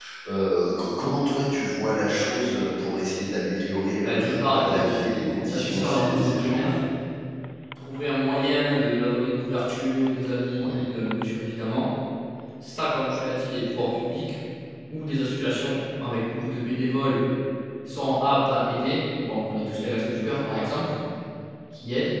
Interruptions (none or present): present